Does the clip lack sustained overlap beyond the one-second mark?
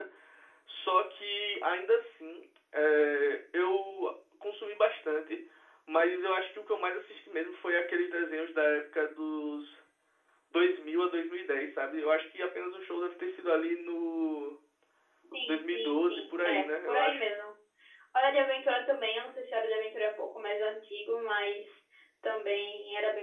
No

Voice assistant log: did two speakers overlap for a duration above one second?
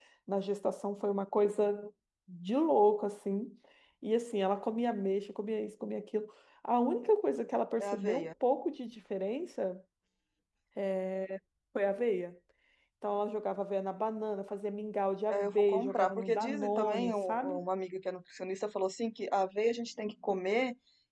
Yes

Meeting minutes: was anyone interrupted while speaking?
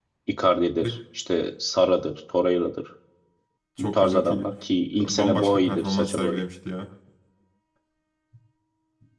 Yes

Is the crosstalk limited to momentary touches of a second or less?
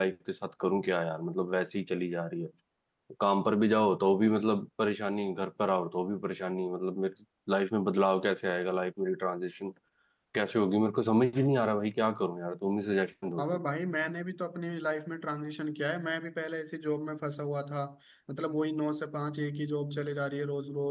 Yes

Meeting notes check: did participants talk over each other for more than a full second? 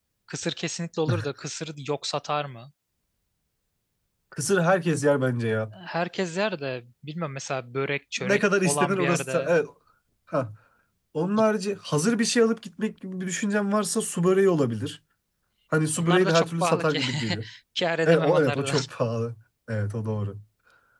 Yes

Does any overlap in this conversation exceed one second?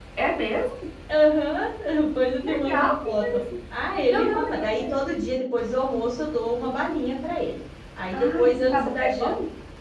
Yes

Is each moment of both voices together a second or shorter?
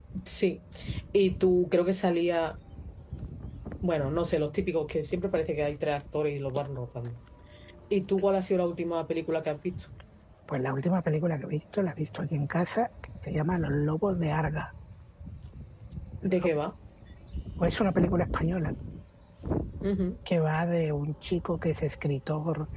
Yes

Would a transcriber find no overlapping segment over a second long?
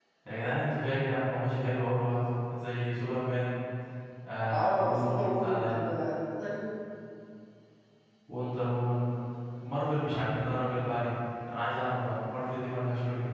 No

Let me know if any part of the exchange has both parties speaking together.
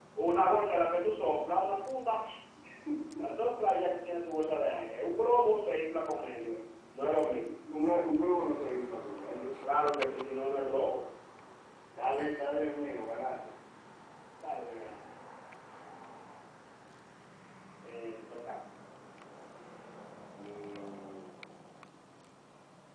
No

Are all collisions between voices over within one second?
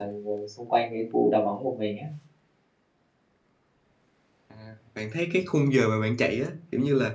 Yes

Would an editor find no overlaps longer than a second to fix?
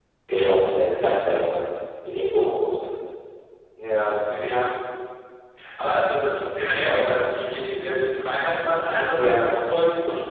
Yes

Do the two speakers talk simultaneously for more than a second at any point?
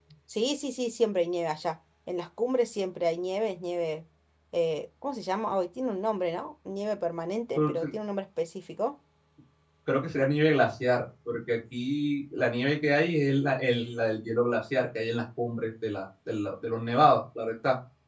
No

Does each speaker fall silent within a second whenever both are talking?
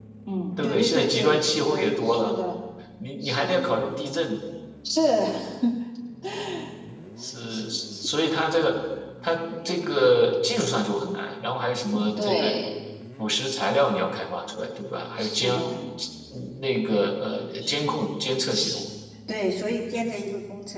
No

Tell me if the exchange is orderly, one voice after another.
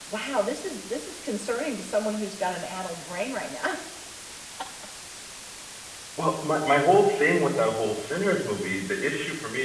Yes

